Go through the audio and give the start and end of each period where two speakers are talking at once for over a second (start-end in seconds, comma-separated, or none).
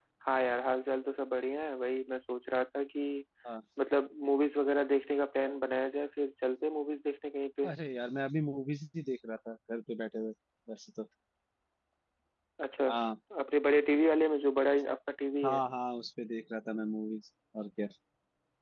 none